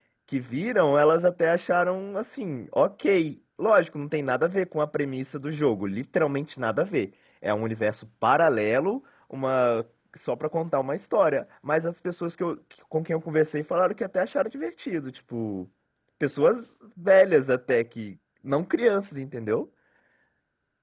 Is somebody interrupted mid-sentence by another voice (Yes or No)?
No